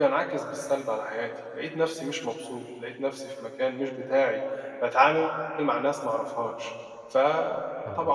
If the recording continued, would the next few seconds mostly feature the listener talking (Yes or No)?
No